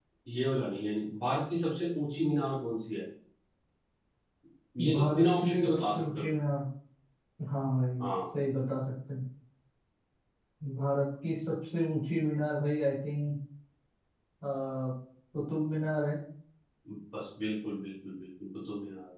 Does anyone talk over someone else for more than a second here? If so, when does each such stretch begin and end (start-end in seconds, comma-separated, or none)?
4.9-6.3